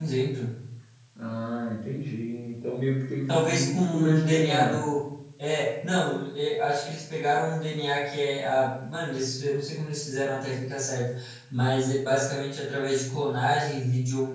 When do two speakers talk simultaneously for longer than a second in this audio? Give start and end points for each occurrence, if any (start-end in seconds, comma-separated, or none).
3.3-4.8